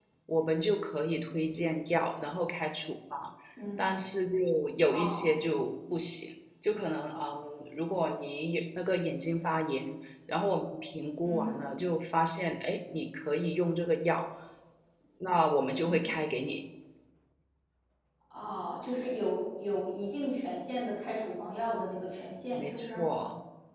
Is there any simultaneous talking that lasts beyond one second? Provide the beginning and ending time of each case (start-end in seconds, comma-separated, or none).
none